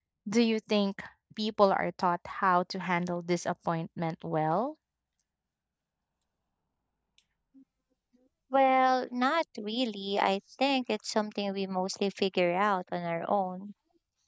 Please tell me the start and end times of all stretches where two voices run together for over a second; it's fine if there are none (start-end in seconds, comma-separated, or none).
none